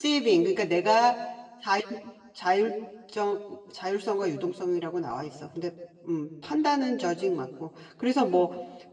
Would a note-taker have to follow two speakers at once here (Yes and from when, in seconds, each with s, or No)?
No